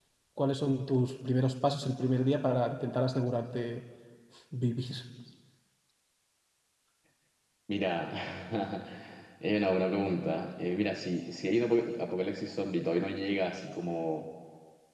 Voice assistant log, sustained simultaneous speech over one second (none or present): none